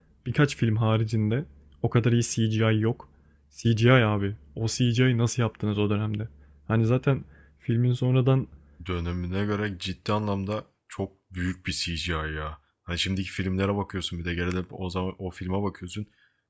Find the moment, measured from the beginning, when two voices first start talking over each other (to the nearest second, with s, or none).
none